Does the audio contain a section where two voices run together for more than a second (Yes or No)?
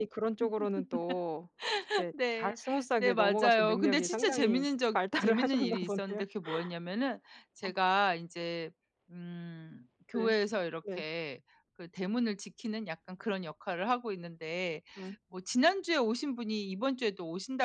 Yes